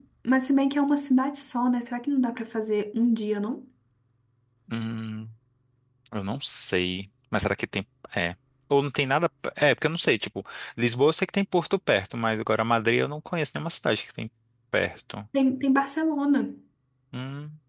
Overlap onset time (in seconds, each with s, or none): none